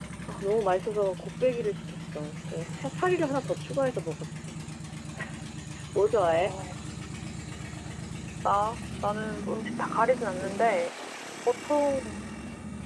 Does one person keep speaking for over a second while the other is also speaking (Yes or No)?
No